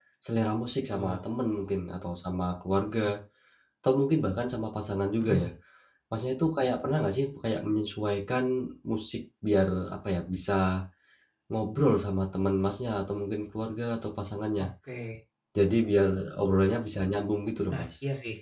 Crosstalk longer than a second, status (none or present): none